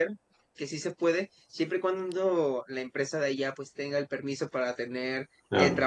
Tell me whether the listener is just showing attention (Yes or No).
Yes